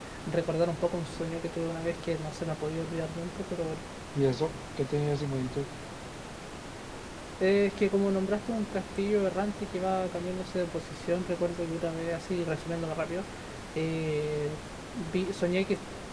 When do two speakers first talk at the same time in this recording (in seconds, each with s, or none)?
none